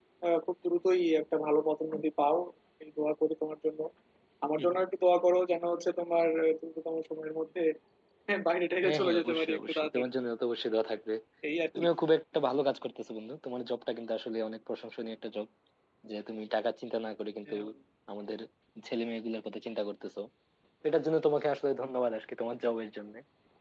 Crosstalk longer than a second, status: present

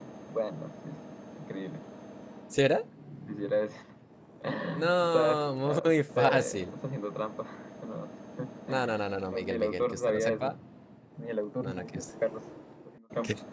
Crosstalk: present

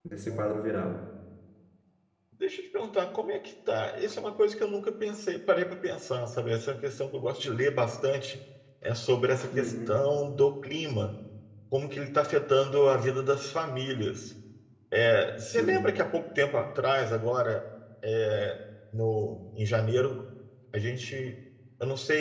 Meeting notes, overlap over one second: none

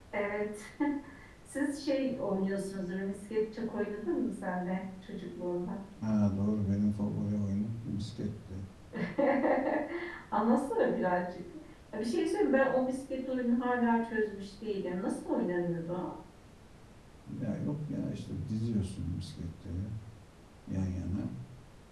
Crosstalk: none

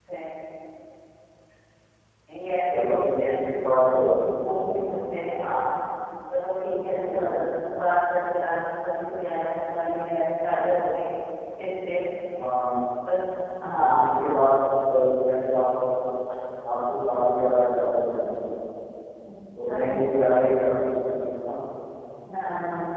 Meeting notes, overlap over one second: present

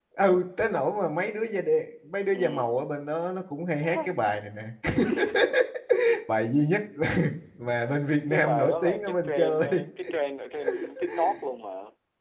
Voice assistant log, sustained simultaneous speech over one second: present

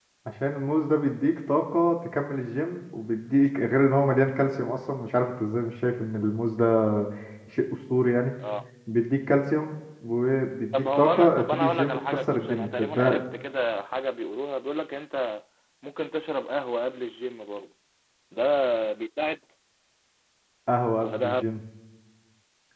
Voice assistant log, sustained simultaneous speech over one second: present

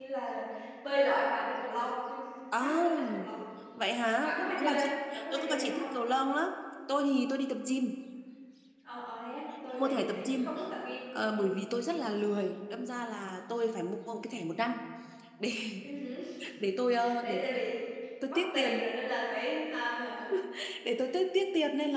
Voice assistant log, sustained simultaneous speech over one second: present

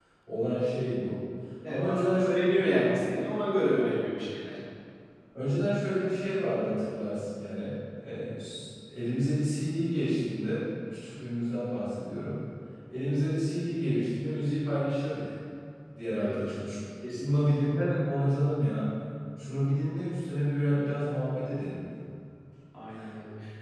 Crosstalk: present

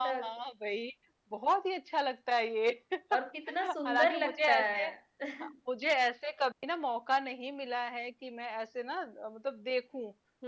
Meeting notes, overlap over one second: present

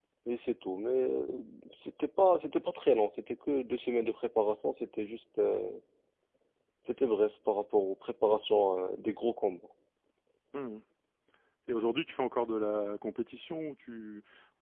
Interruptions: none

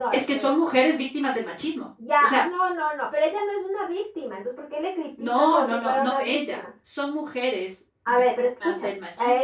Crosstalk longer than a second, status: present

